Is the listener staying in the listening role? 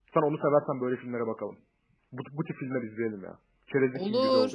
No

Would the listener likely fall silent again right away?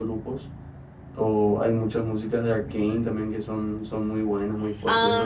No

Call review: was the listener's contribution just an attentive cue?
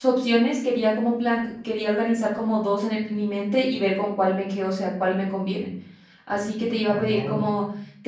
Yes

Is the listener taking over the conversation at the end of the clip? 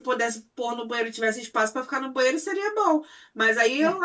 No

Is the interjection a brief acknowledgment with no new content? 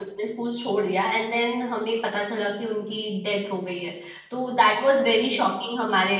Yes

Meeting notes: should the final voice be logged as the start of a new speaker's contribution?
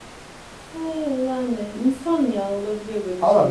Yes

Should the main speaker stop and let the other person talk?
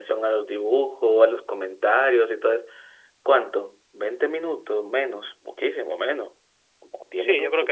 Yes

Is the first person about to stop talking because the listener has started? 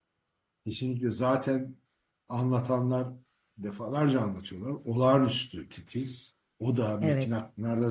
No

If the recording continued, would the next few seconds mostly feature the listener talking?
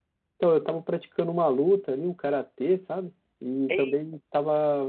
No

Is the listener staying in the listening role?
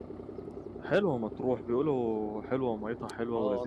No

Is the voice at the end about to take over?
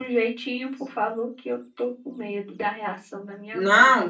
Yes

